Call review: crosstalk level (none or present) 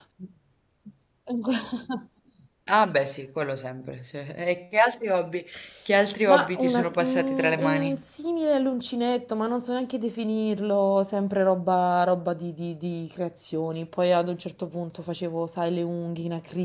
present